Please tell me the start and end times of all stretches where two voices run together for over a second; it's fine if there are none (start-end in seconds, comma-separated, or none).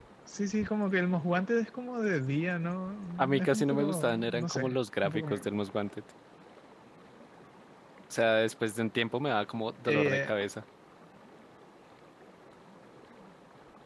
3.2-5.2